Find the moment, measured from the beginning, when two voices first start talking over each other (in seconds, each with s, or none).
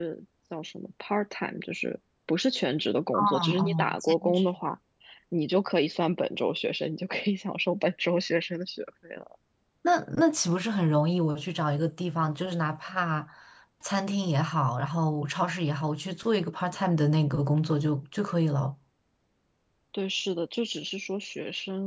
3.1 s